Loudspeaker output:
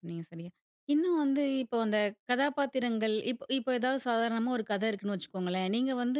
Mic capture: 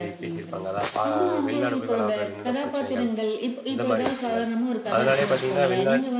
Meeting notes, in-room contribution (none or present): present